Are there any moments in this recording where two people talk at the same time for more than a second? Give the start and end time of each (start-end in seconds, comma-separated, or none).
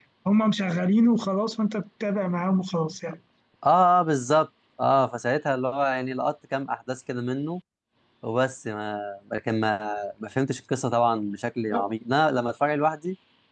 none